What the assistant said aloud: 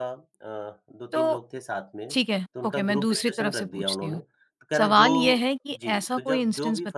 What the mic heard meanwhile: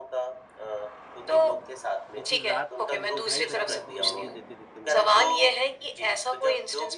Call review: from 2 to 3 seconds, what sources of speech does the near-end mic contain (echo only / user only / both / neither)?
both